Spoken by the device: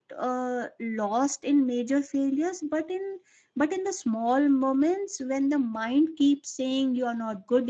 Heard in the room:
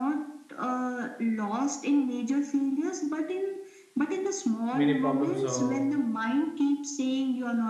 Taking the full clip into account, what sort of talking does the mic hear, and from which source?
both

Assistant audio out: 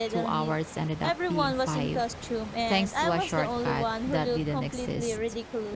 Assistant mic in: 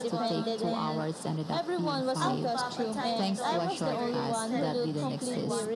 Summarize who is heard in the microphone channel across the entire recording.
both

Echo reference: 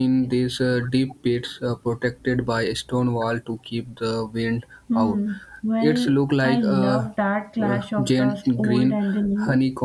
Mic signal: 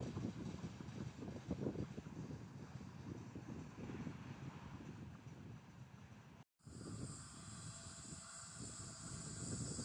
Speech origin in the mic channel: neither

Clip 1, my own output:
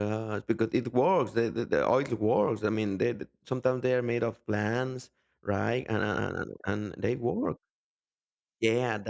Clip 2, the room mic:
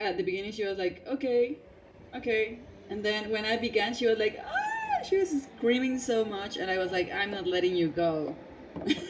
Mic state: user only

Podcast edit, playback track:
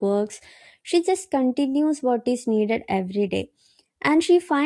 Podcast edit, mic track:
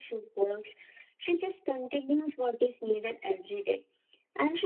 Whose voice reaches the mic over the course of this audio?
echo only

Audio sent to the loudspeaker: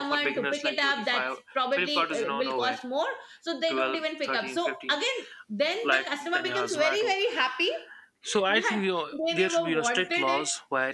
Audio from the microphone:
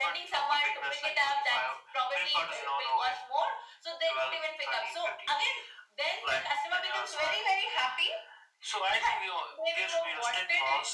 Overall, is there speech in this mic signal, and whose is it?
echo only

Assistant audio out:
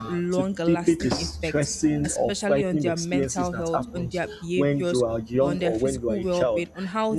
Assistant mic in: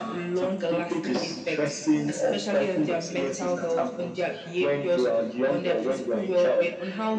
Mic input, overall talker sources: echo only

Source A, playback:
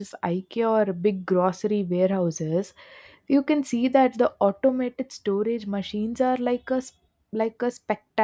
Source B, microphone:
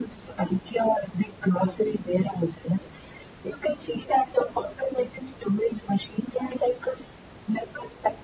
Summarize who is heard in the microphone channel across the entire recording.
echo only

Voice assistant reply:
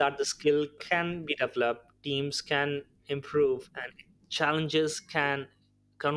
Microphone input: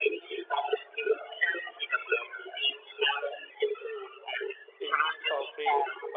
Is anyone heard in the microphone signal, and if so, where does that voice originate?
both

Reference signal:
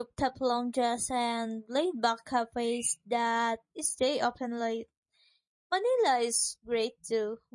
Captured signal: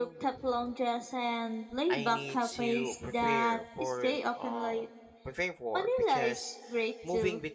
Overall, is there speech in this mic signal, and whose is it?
both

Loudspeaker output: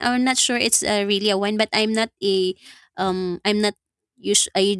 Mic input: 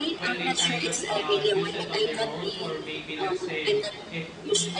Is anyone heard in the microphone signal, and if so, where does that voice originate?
both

